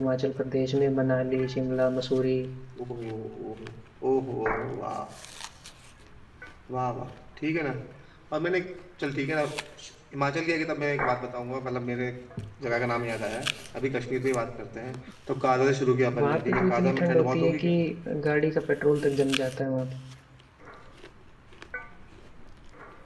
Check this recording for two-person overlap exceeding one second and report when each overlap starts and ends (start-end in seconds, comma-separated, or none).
16.2-17.7